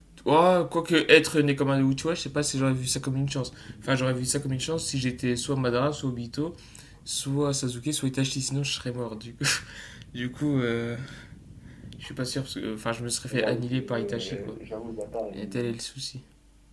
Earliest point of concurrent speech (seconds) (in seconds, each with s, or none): 13.3 s